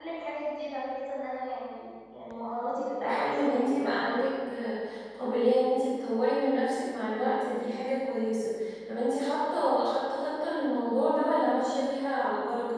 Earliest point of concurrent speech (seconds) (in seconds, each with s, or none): 2.7 s